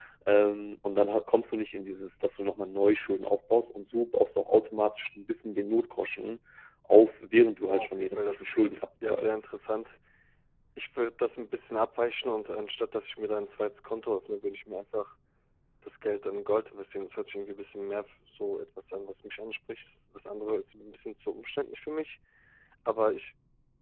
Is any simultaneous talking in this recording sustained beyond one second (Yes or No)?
Yes